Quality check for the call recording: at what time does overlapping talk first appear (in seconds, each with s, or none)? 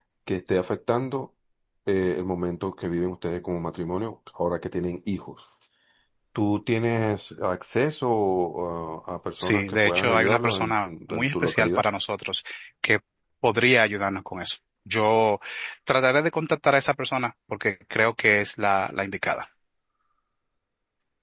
9.4 s